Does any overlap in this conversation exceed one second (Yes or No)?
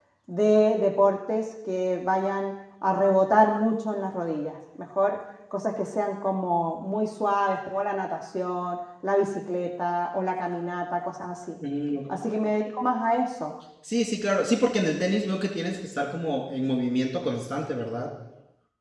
No